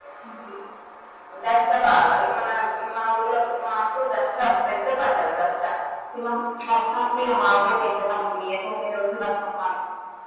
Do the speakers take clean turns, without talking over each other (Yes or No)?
Yes